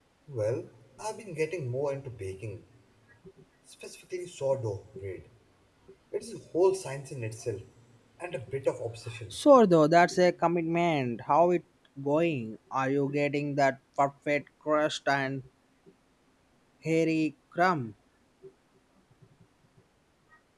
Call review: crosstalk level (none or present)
none